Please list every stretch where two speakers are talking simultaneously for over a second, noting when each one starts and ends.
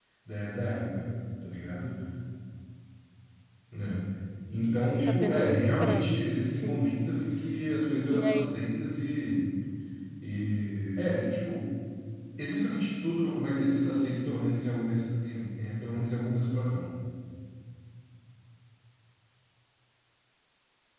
5.1-6.8

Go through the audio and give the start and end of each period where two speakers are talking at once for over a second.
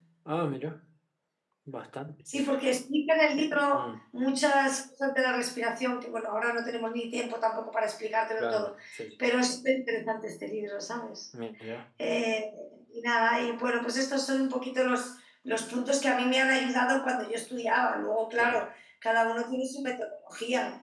none

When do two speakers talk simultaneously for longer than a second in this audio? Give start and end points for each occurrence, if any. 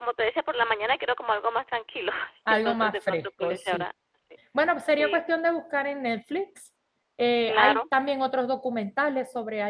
2.5-3.8

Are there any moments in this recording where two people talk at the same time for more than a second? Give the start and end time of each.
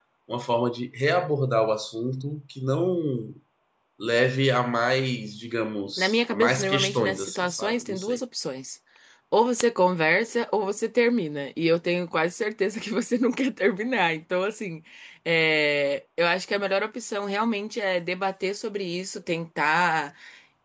6.0-8.2

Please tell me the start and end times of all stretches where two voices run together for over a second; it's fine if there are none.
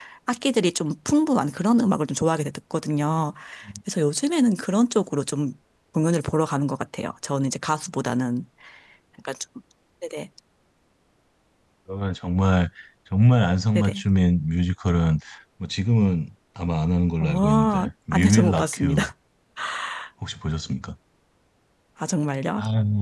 17.2-19.0

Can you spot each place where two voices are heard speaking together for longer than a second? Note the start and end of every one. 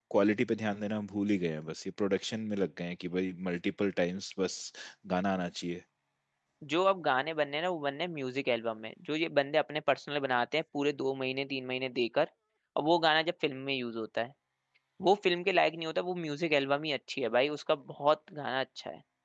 none

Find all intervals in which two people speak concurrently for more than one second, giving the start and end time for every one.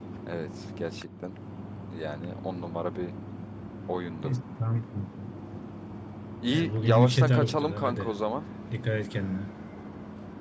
6.5-8.1

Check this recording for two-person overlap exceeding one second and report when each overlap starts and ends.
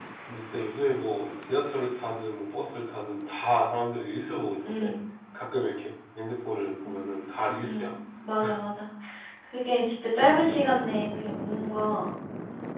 none

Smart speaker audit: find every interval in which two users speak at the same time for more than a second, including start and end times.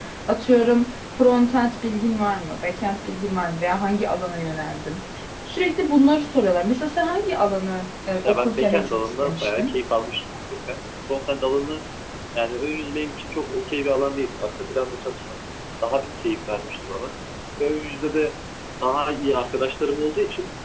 8.2-9.7

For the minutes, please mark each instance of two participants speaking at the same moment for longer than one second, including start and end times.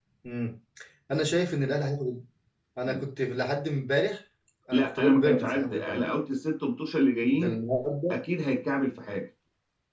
4.7-6.0

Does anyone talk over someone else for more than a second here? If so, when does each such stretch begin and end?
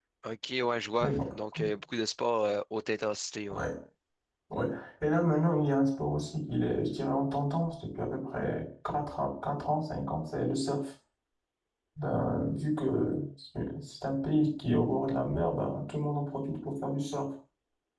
none

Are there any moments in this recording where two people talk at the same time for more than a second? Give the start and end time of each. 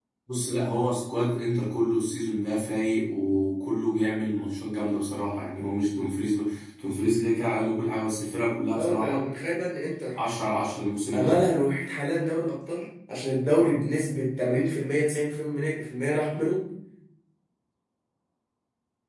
none

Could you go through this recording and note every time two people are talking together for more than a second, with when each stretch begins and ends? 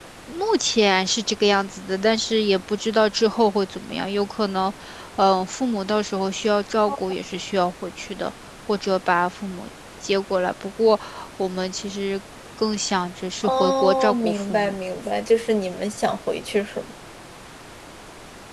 13.4-14.7

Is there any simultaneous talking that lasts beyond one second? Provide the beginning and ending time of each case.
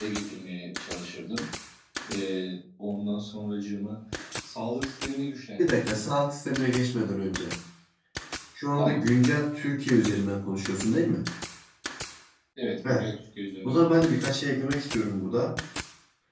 none

